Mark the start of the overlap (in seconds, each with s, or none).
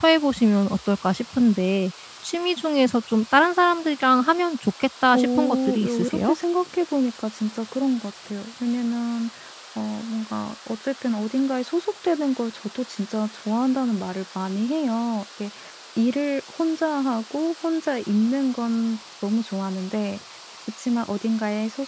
5.1 s